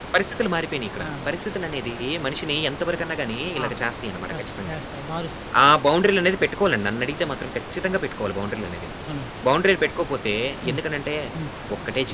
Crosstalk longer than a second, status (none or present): none